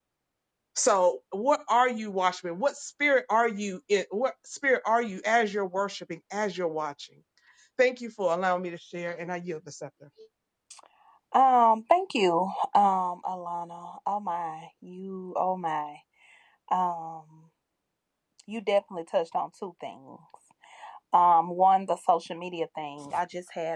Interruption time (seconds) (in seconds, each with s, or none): none